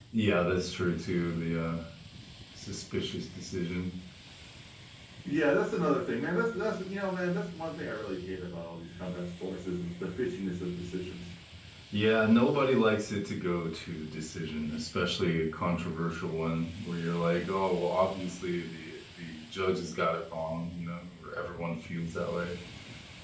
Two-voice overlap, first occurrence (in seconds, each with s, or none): none